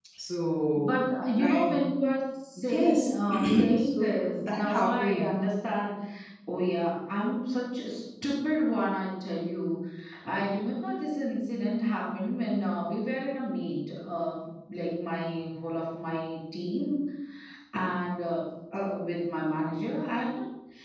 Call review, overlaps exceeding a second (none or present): present